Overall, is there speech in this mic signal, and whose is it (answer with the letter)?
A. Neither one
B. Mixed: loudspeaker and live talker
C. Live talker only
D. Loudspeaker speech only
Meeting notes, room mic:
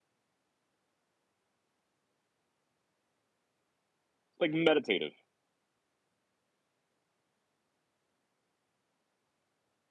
C